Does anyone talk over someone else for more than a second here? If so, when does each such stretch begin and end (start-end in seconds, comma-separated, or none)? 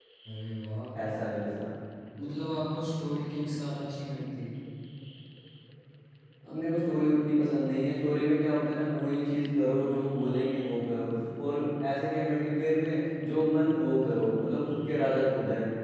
none